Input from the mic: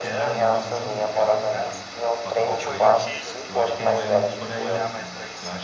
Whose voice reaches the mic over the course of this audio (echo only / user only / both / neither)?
both